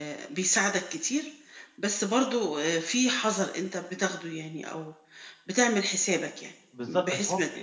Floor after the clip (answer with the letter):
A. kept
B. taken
B